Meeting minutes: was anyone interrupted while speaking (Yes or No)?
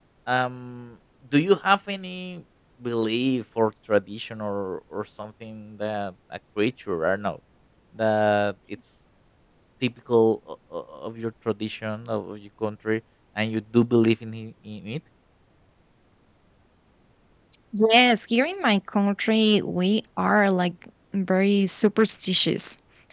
No